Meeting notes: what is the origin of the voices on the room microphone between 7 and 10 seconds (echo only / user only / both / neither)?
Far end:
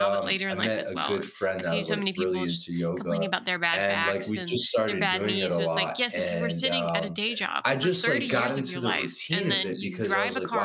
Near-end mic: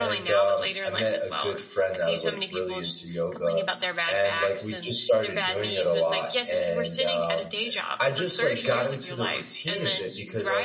echo only